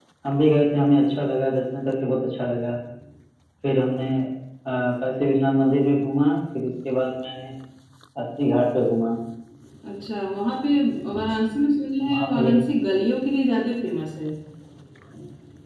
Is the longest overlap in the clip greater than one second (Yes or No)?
No